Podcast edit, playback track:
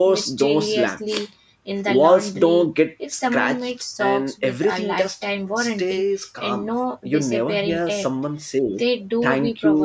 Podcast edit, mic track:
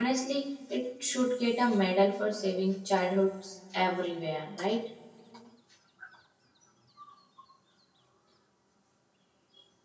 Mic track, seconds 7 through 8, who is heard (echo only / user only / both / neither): neither